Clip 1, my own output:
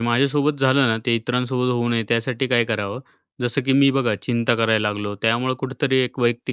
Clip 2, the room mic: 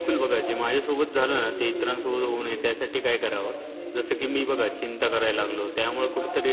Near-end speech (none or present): present